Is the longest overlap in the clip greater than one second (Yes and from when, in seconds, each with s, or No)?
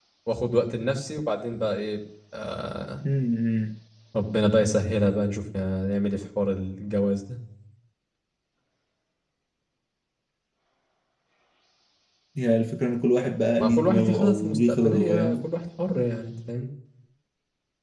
Yes, from 13.6 s